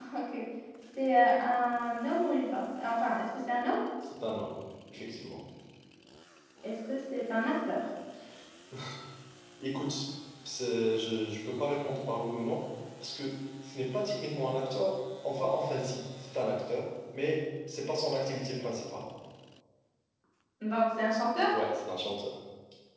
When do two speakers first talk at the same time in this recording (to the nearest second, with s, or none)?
none